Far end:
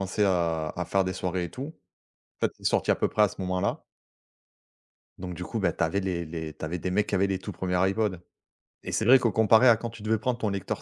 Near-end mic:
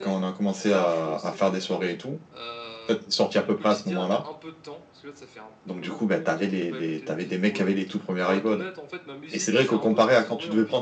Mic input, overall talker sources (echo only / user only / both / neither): both